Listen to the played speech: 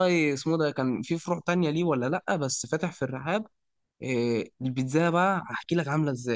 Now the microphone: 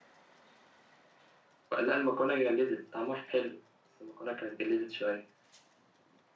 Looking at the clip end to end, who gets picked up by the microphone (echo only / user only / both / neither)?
user only